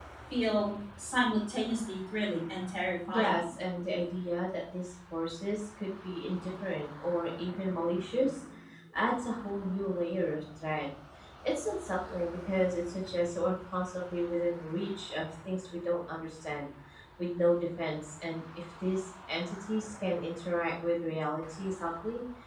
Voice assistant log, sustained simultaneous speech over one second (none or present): none